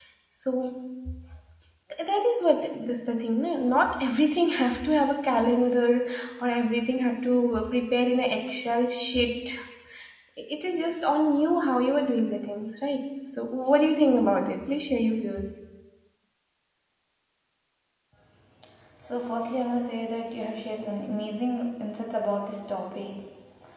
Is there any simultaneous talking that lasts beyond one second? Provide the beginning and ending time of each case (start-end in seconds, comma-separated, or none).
none